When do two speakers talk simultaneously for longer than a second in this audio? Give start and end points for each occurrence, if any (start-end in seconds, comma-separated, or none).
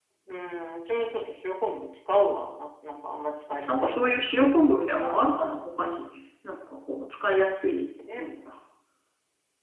none